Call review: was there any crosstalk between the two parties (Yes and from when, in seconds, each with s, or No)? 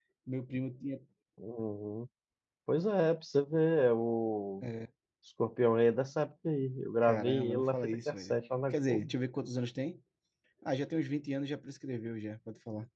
Yes, from 7.0 s